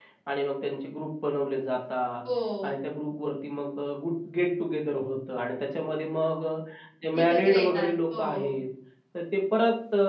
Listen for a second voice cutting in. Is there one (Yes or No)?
Yes